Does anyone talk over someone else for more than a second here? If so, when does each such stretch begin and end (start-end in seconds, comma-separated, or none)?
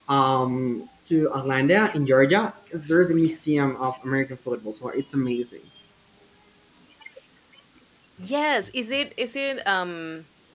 none